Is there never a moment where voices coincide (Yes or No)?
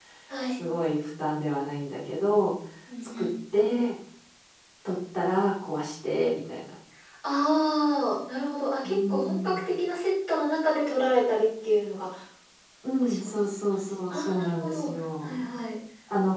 No